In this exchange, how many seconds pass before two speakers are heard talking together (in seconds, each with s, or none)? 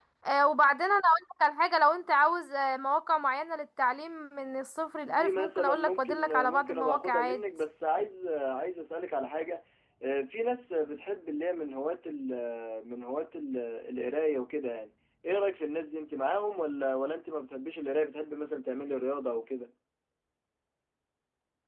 5.0 s